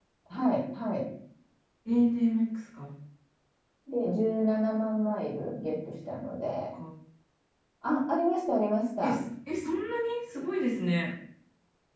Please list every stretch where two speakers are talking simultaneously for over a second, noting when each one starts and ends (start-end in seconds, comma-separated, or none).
none